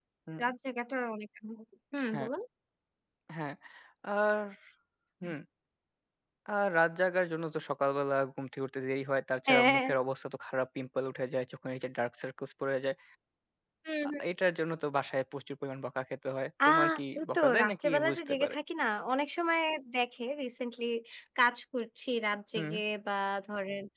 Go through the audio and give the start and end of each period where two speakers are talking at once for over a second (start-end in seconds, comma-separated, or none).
17.2-18.6